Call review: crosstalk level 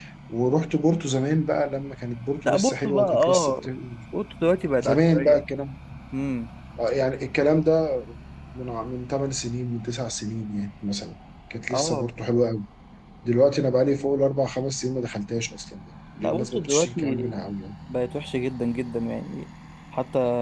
present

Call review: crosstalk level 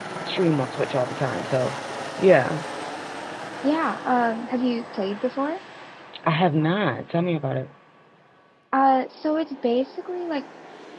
none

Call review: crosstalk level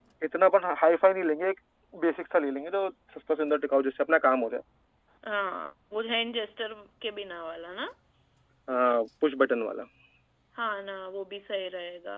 none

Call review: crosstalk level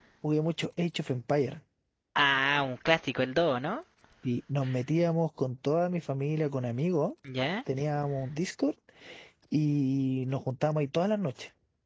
none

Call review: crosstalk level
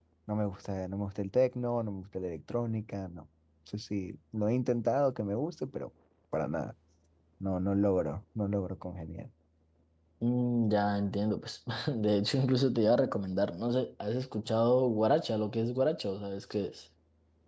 none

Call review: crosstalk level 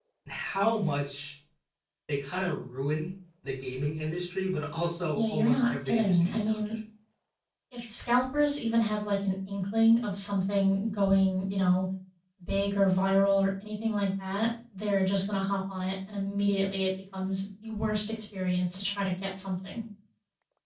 present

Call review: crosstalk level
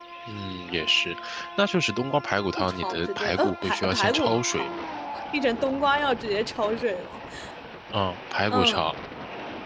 present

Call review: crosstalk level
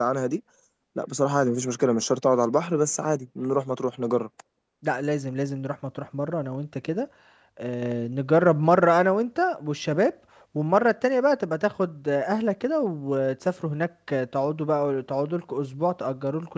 none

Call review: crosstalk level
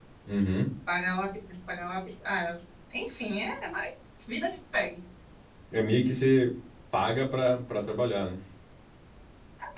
none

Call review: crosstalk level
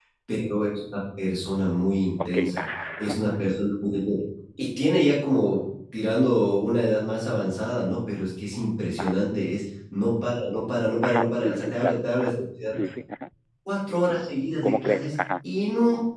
present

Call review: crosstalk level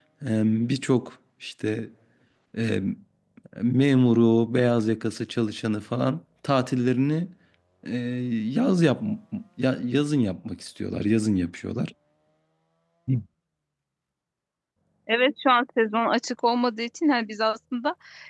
none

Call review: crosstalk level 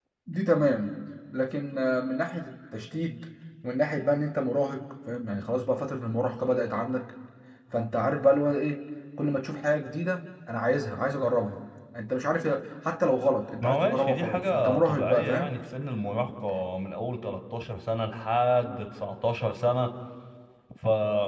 present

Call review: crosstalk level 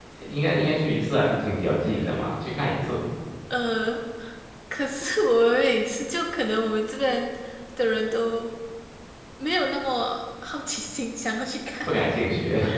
none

